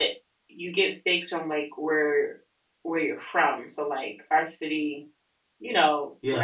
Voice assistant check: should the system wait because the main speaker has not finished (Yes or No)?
Yes